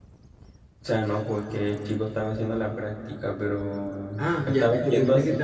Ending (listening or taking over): taking over